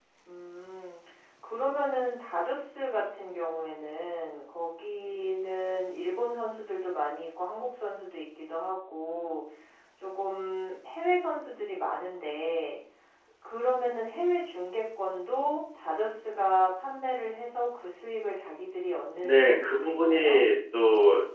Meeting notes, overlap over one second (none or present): present